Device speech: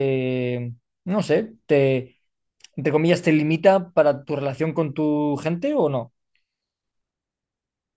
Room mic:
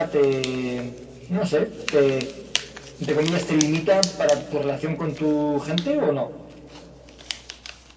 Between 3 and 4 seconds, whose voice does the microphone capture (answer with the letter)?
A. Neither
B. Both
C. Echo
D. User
C